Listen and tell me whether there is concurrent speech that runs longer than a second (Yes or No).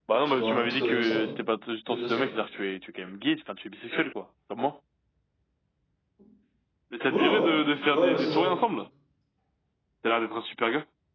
Yes